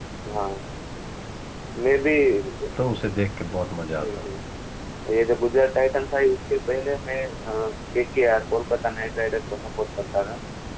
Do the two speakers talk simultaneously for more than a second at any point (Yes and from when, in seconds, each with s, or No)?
No